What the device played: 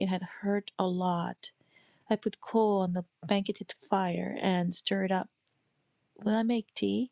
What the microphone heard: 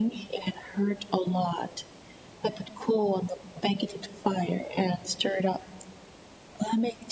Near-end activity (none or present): none